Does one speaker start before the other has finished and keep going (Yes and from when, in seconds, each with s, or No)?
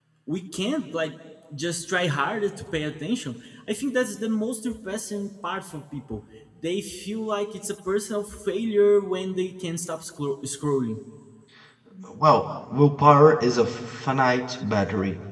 No